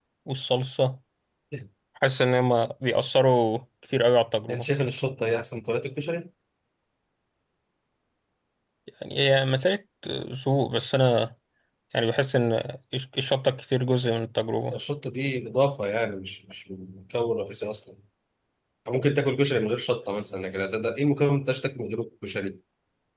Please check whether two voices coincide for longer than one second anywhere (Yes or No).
No